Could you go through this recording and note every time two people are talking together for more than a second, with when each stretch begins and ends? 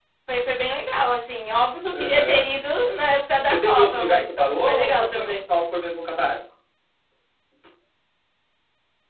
3.5-5.4

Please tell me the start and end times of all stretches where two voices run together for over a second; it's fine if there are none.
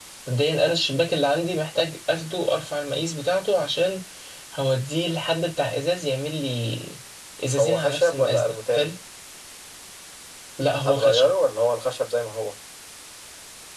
7.6-8.9

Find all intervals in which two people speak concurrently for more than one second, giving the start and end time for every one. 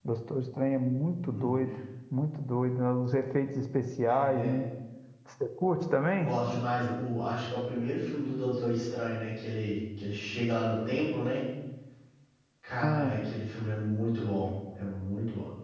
none

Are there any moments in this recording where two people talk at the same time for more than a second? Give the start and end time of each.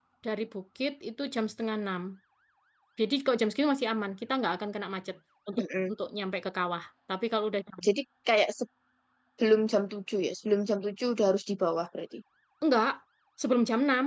none

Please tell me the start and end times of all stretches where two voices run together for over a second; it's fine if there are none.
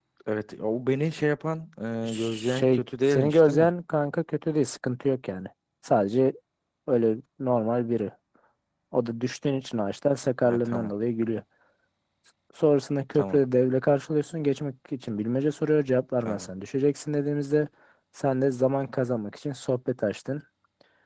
2.1-3.7

